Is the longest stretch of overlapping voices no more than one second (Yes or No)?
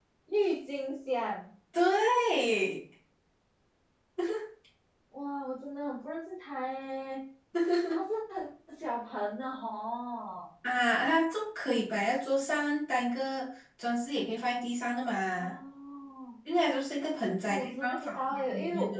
No